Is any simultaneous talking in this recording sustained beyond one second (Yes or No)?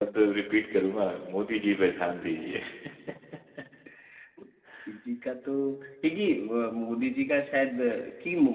No